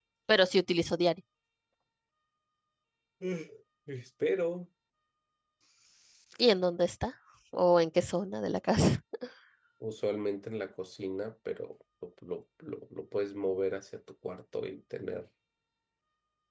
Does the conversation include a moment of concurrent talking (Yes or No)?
No